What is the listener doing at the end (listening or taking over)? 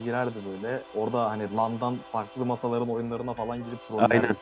taking over